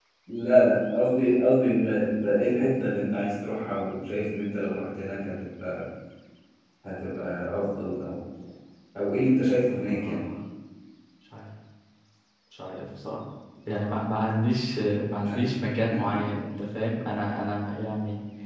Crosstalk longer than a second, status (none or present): none